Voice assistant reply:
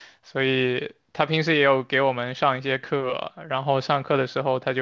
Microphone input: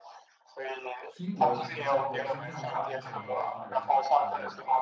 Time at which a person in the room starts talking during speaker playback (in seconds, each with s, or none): 1.2 s